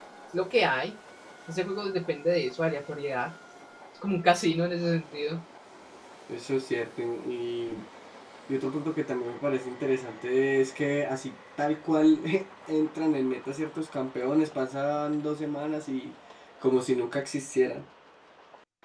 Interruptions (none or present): none